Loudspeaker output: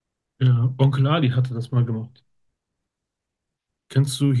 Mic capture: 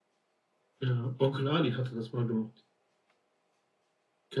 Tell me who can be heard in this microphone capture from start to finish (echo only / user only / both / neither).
echo only